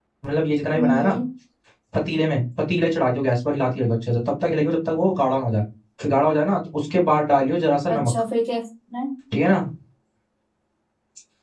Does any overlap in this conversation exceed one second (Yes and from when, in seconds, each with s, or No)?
No